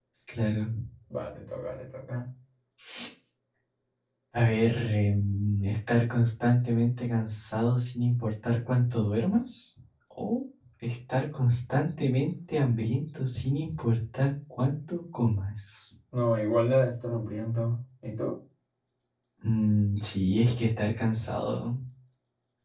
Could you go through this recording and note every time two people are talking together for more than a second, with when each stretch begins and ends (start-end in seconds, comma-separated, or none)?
none